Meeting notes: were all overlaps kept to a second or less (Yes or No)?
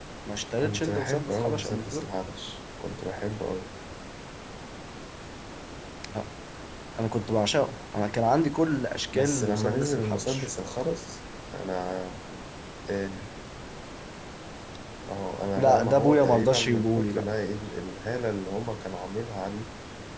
No